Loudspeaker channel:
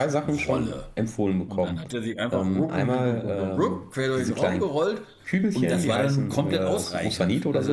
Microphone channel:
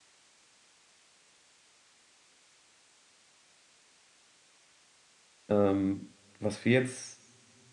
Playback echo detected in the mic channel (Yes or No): No